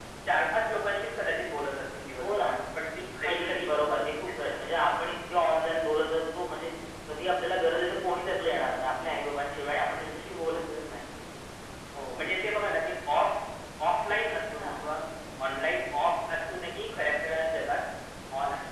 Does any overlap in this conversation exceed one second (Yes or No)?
Yes